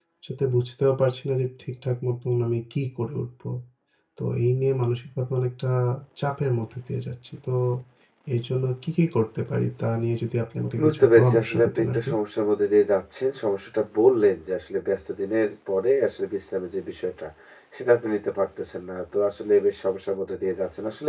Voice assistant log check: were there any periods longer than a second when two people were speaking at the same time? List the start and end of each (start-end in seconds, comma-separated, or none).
10.8-12.1